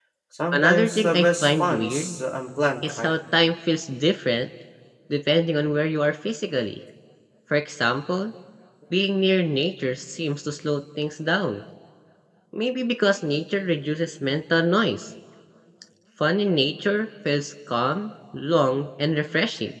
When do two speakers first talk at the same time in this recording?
0.5 s

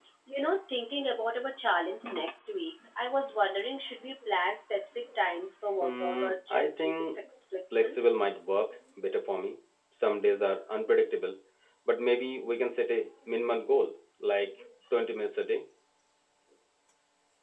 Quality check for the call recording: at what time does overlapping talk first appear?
5.8 s

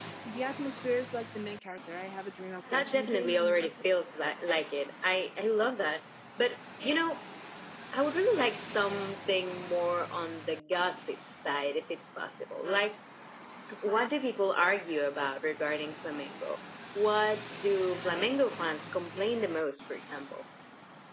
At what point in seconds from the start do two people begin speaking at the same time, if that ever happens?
2.7 s

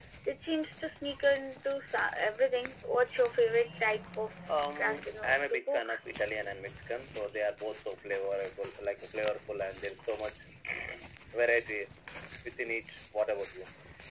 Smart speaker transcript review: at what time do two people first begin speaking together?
4.8 s

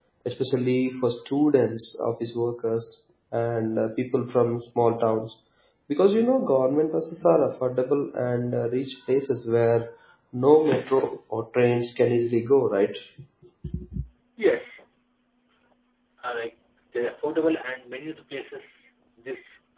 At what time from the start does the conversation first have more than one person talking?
none

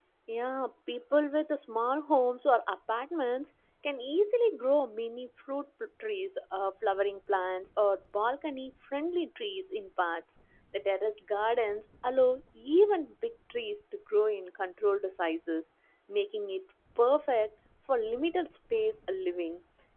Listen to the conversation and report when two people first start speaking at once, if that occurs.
none

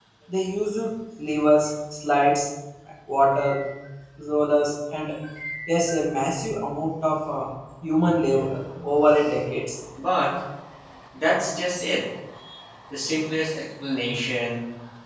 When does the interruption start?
none

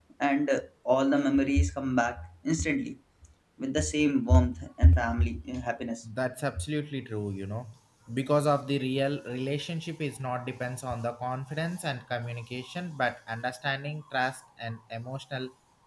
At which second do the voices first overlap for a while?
none

